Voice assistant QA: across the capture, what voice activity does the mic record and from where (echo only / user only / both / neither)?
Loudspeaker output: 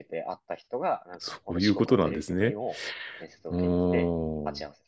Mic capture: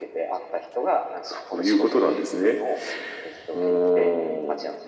echo only